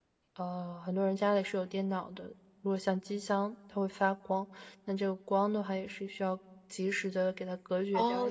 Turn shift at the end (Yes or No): Yes